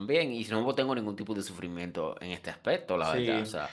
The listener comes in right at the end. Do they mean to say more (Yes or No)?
Yes